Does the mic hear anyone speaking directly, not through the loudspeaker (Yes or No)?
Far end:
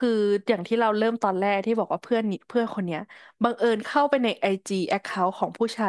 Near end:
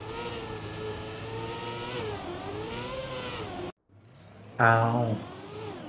Yes